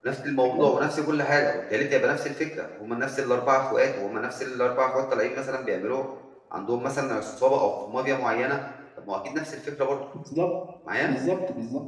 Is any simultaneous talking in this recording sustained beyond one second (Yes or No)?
No